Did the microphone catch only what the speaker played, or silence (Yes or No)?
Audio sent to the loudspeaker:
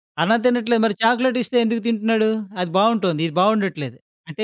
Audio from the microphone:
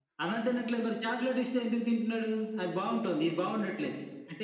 Yes